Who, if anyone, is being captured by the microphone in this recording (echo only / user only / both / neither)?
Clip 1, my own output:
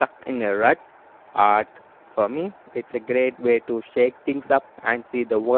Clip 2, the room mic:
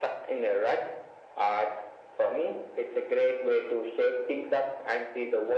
echo only